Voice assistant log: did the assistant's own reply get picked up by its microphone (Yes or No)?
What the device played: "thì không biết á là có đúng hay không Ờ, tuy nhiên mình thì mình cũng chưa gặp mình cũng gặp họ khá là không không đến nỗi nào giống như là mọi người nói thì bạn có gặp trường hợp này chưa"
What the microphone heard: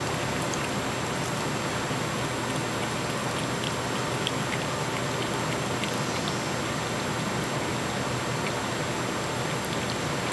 No